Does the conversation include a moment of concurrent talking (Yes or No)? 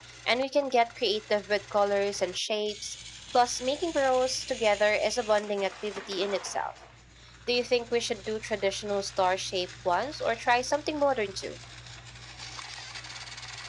No